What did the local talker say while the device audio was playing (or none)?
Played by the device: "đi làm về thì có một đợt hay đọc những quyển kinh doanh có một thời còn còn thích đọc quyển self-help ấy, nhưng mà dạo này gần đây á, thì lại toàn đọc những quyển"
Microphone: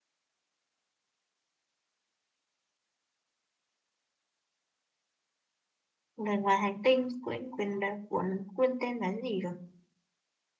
người ngoài hành tinh. Quên, quên, đấy, cuốn, quên tên là gì rồi?